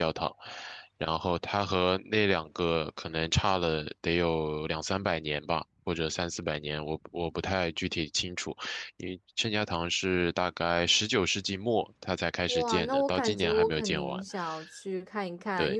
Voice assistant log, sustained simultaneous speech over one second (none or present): present